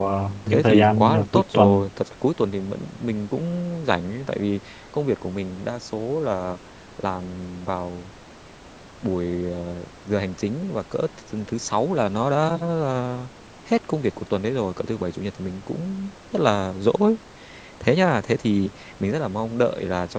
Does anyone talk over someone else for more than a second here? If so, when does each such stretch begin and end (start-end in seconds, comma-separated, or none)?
0.5-1.8